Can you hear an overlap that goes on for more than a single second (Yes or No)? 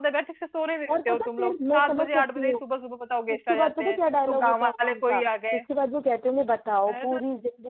Yes